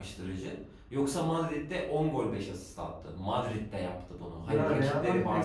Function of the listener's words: taking over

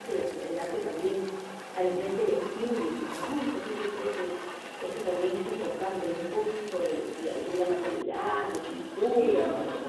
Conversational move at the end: taking over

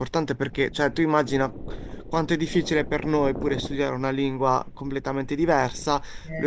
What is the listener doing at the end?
listening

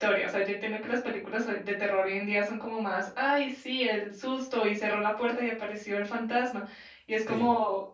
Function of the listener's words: listening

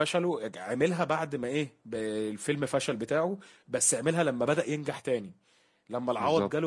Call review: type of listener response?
listening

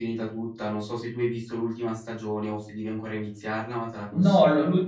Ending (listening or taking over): taking over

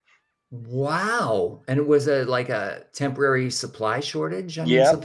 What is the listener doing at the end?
taking over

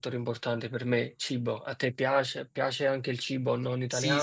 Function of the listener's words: taking over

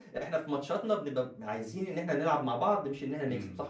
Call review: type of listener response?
taking over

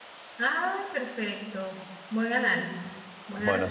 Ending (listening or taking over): taking over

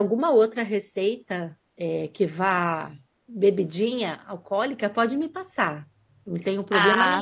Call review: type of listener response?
taking over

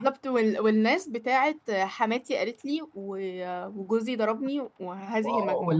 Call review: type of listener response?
taking over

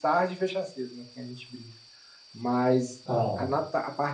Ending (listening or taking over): listening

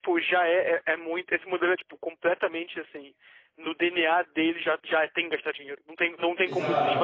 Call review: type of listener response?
taking over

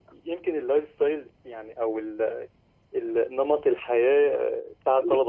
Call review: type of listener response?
taking over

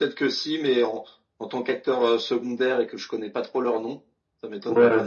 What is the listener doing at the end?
taking over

